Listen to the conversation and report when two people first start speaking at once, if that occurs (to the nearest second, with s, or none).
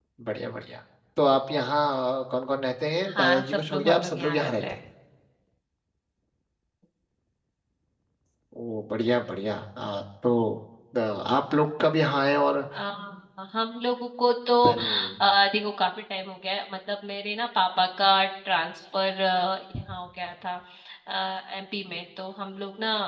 3 s